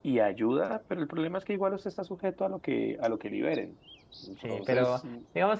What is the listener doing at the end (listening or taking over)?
taking over